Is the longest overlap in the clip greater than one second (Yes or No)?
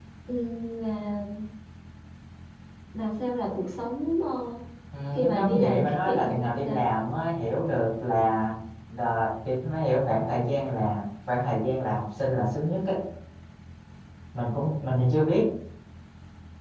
Yes